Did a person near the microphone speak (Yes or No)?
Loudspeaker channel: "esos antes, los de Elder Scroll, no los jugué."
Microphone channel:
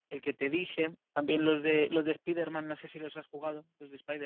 Yes